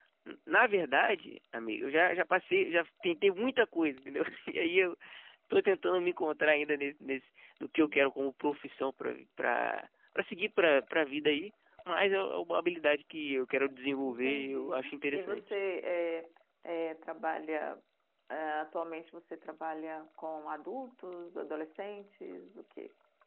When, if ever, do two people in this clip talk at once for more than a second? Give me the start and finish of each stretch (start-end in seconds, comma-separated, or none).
14.0-15.4